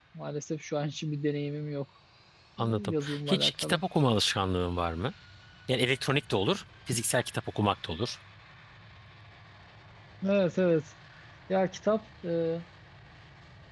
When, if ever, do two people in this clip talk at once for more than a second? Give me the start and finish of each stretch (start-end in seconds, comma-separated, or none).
2.6-3.8